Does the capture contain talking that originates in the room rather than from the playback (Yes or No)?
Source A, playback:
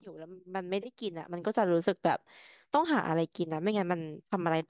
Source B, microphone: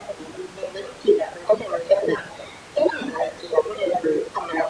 No